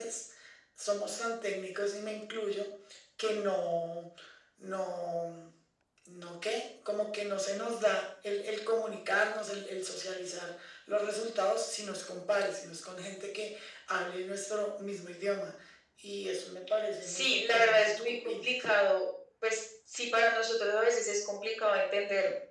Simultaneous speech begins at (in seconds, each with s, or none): 17.0 s